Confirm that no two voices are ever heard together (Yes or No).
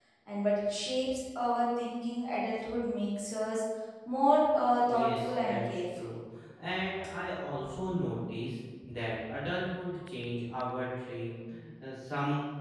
No